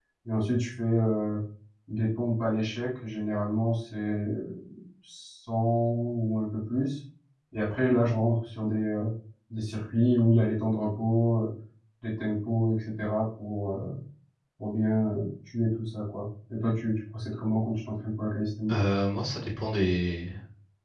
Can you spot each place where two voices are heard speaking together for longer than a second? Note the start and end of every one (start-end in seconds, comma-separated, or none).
none